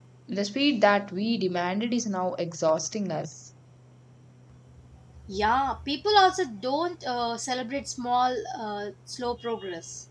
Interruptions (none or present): none